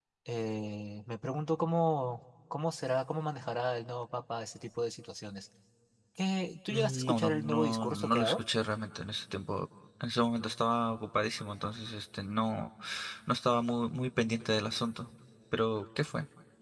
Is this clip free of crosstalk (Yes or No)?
No